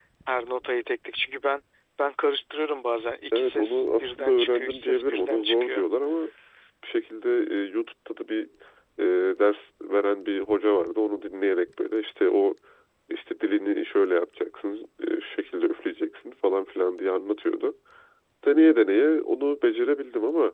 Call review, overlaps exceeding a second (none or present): present